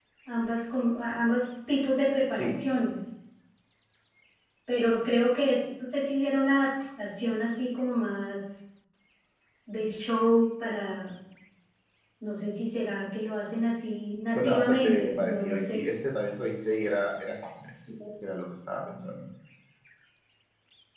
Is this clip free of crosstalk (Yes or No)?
No